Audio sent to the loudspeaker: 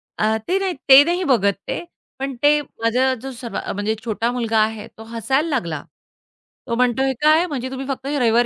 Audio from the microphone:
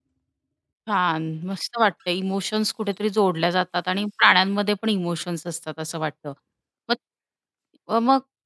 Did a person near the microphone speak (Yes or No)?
Yes